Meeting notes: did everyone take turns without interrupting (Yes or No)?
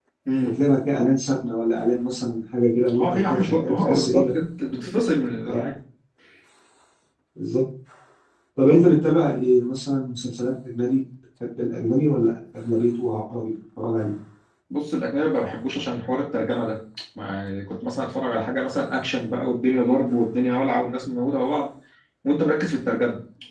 No